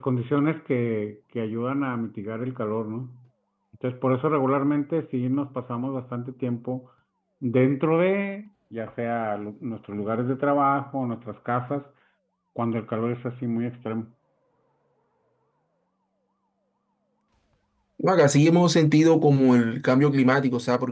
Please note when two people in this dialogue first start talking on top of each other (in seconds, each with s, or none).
none